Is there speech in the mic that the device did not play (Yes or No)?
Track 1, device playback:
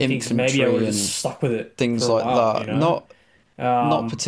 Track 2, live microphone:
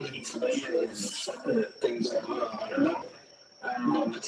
No